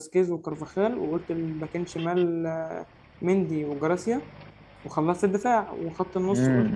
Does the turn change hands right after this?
Yes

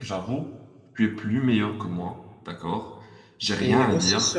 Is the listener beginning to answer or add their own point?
Yes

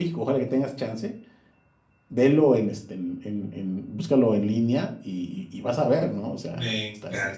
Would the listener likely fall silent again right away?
No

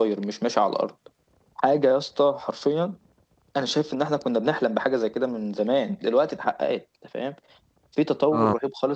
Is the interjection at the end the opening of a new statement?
No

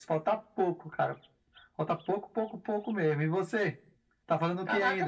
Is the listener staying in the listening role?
No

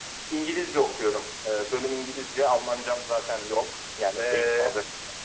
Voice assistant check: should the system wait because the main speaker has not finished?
No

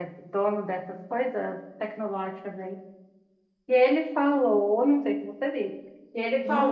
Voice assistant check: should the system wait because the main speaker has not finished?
Yes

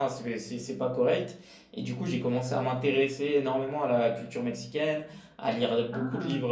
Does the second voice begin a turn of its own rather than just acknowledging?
No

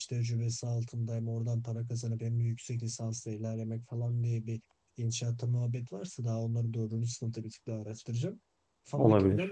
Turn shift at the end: No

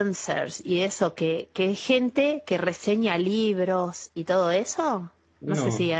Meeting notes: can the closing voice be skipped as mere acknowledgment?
Yes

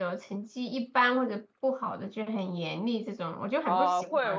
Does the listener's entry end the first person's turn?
Yes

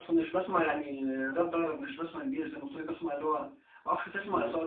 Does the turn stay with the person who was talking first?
Yes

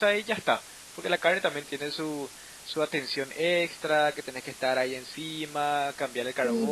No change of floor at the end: No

